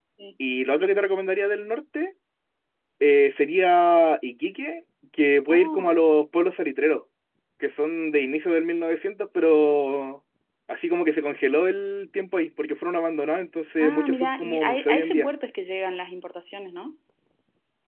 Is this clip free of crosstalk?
No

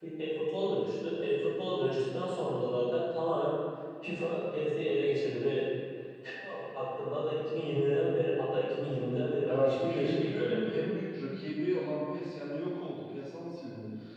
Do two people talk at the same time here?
Yes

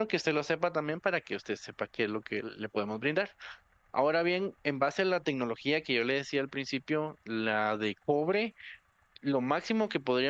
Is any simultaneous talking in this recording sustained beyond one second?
No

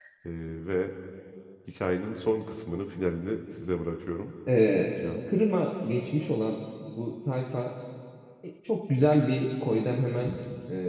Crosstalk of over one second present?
No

